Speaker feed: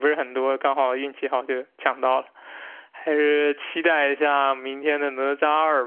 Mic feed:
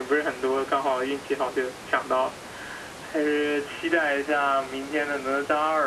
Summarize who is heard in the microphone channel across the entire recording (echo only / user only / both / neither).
echo only